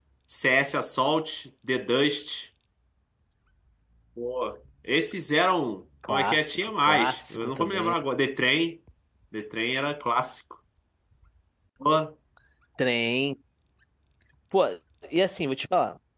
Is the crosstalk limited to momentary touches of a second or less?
No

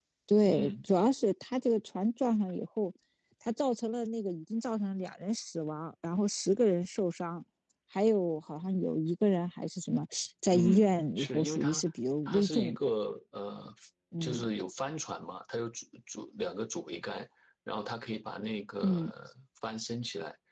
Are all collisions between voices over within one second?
No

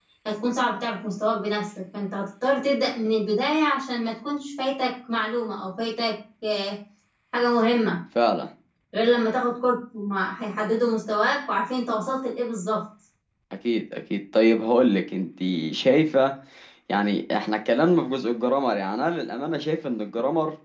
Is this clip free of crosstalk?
Yes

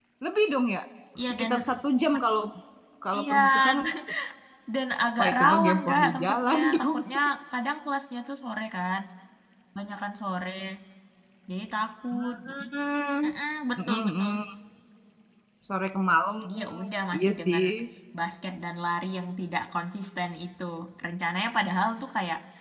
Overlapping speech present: Yes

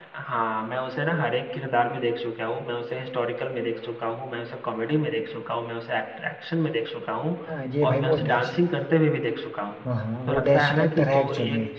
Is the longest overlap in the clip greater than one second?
Yes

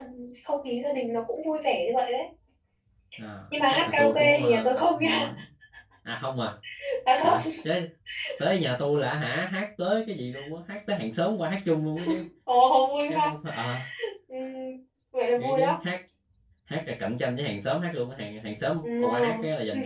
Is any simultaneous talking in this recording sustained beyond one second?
Yes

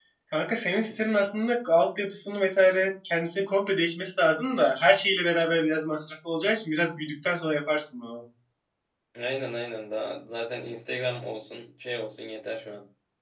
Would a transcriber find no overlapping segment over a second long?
Yes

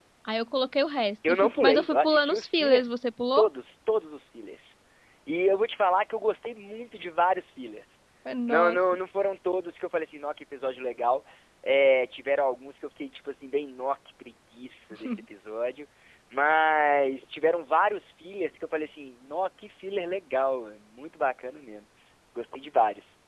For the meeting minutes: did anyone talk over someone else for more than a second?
Yes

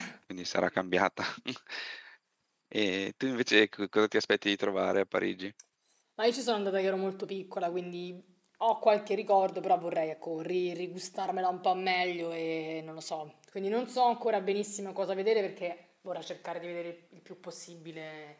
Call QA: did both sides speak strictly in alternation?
Yes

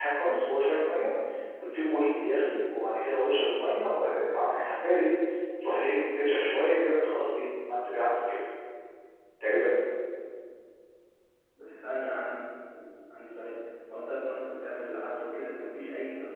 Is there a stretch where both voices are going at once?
No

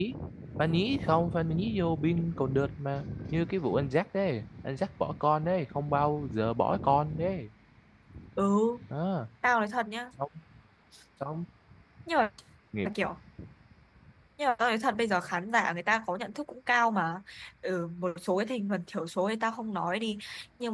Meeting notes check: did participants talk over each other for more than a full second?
No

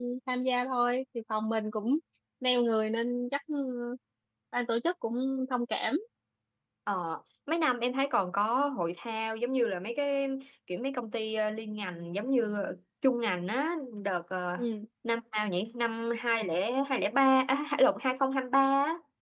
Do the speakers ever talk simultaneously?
No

